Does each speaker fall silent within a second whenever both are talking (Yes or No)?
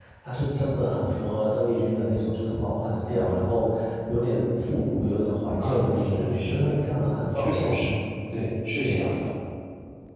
No